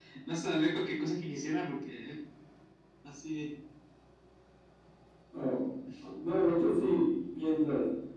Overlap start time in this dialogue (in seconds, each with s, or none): none